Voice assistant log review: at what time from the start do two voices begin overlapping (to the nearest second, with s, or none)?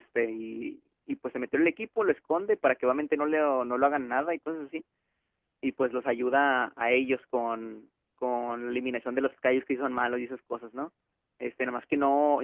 none